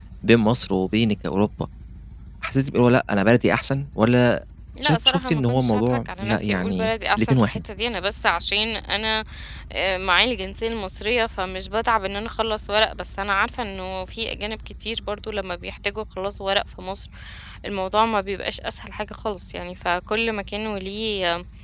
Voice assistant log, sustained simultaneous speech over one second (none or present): present